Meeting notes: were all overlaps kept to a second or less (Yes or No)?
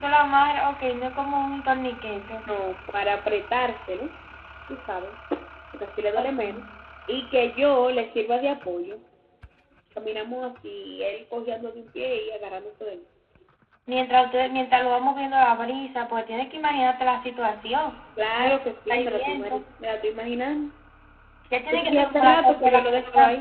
No